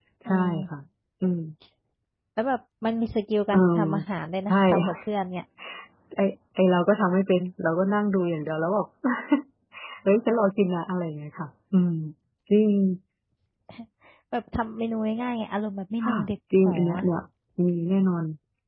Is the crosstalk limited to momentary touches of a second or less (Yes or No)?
Yes